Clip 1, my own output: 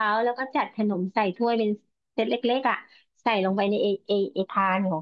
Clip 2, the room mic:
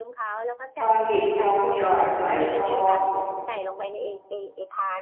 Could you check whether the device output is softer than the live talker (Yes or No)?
Yes